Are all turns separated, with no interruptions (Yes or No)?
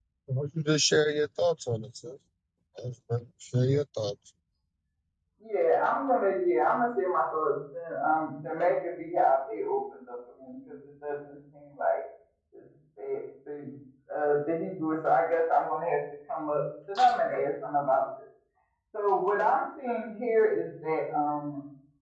Yes